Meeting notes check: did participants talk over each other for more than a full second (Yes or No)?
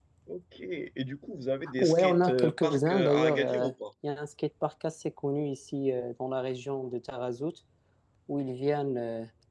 Yes